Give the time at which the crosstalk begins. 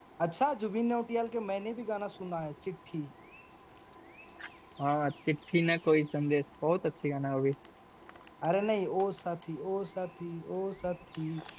none

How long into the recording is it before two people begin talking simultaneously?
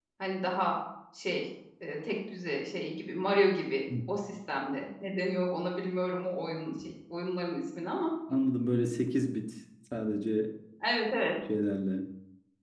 none

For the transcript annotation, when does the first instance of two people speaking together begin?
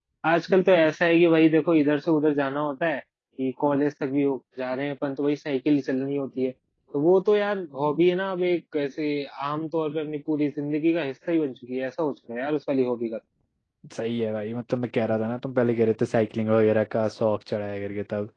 none

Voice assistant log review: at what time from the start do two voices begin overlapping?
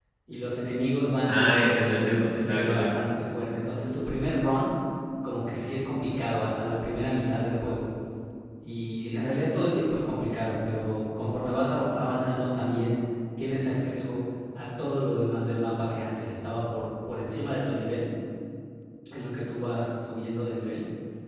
1 s

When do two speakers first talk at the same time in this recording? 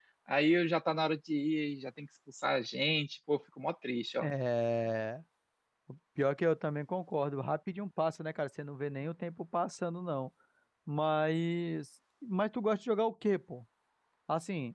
none

